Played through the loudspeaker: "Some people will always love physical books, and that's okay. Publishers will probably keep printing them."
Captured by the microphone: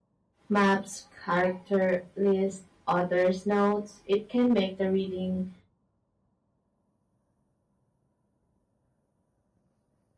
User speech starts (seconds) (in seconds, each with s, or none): 0.5 s